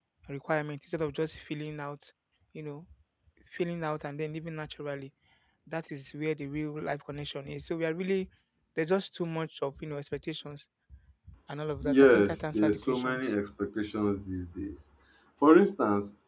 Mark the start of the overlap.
11.8 s

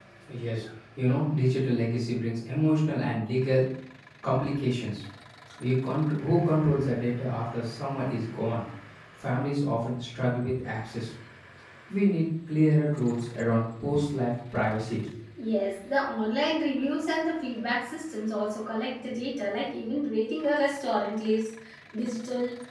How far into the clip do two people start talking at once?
none

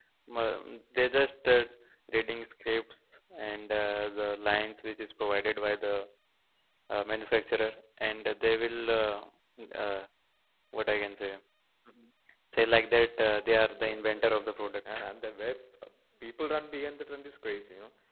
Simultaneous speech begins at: 13.7 s

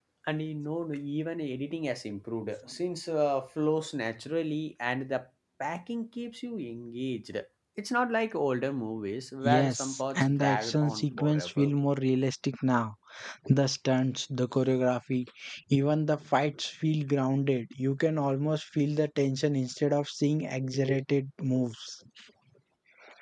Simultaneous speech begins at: 9.4 s

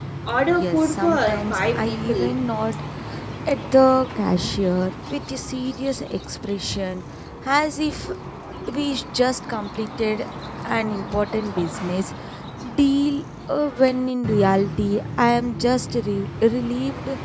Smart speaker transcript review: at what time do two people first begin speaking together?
0.6 s

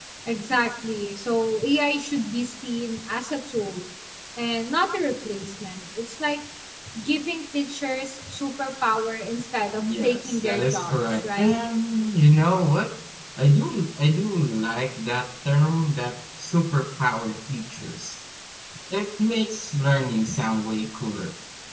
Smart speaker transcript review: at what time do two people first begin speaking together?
9.8 s

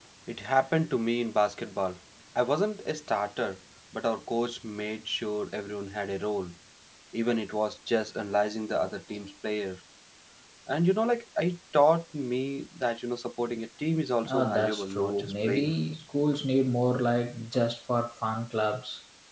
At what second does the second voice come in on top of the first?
14.2 s

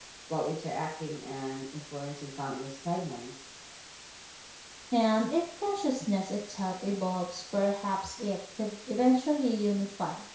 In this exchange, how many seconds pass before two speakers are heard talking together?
none

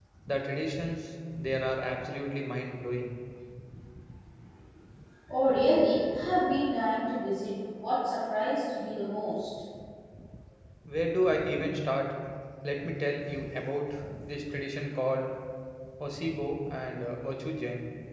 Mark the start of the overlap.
none

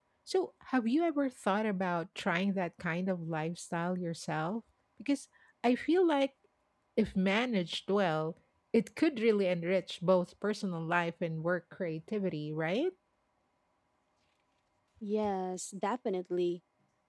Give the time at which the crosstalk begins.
none

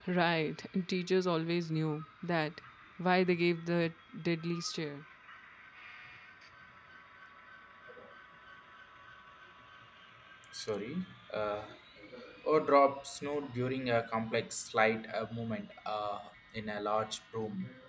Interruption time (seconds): none

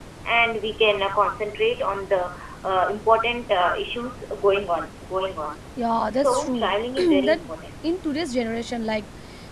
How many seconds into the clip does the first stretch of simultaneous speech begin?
6.1 s

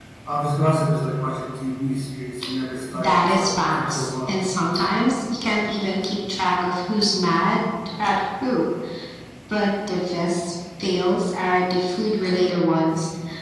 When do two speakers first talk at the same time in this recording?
2.9 s

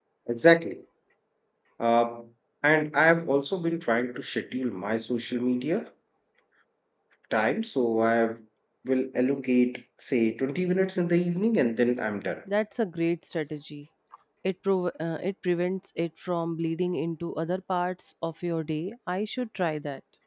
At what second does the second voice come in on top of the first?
none

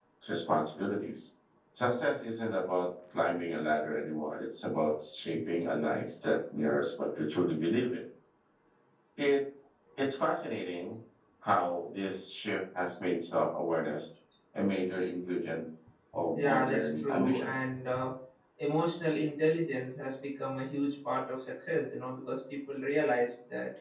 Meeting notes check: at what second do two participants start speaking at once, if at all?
16.3 s

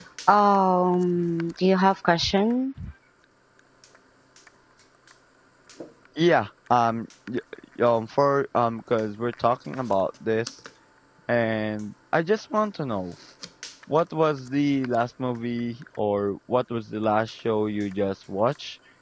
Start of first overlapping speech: none

